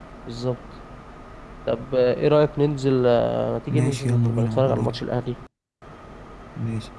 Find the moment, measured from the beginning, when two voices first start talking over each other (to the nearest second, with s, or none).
4 s